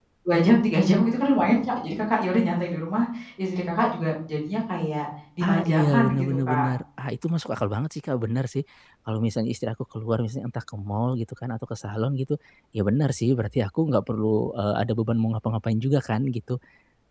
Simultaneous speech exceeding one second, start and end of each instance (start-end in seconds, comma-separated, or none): 5.5-6.7